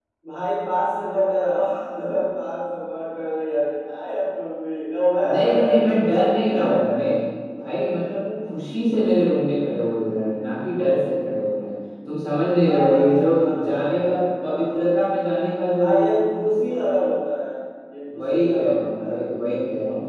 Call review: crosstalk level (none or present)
present